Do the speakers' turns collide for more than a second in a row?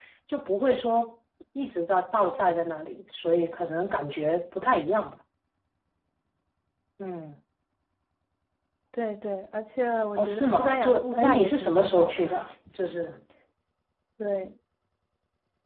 Yes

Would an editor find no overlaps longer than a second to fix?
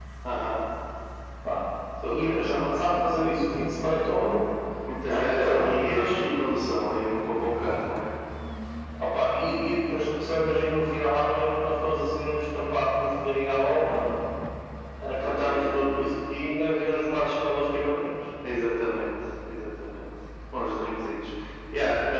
No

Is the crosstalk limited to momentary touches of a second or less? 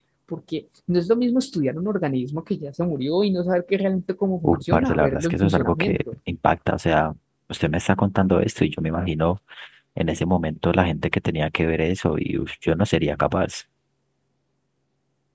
No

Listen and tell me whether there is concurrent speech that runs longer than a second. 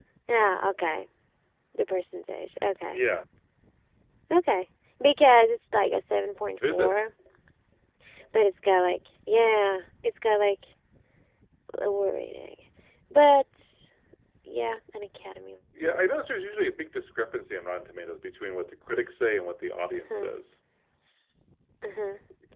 No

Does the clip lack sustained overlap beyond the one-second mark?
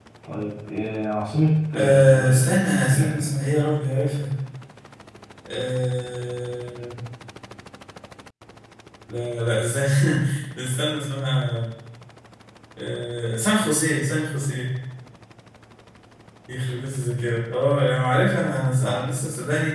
No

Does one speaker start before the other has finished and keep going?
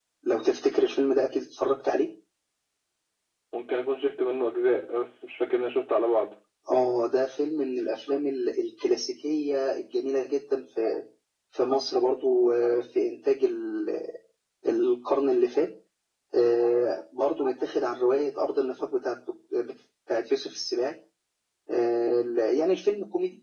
No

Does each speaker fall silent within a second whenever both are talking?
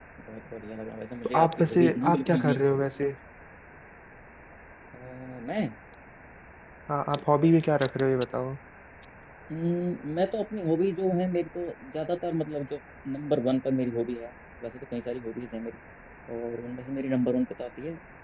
No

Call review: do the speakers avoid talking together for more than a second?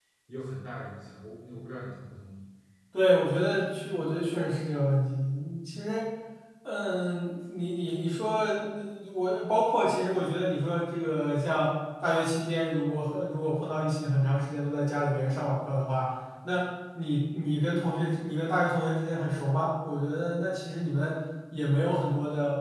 Yes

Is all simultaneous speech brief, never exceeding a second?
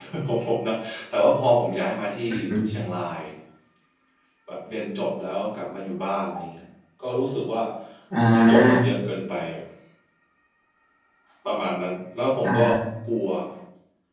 Yes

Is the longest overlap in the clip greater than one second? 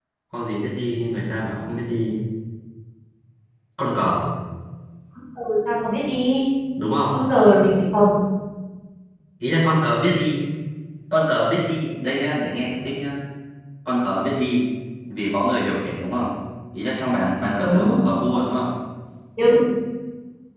No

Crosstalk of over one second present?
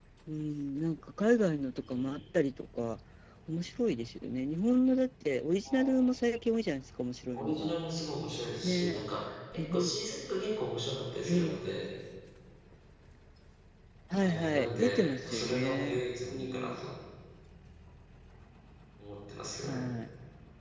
Yes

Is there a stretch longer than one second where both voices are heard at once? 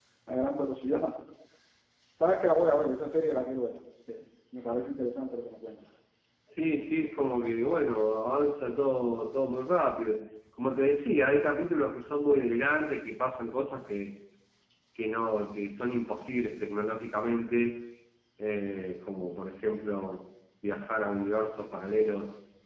No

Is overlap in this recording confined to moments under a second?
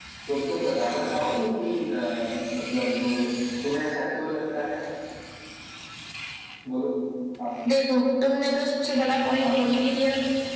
Yes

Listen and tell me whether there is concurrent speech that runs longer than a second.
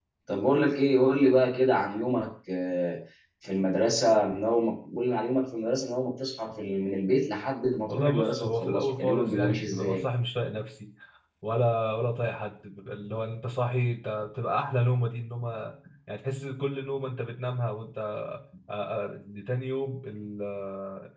Yes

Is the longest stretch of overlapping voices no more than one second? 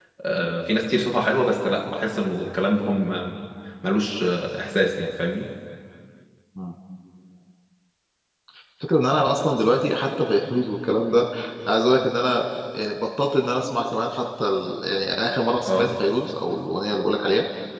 Yes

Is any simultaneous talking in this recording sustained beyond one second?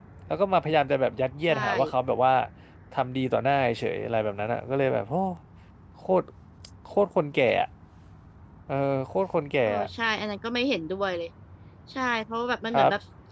No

